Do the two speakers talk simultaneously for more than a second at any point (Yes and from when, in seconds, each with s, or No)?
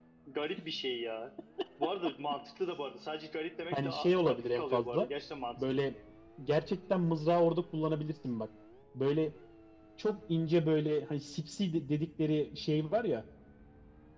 Yes, from 3.7 s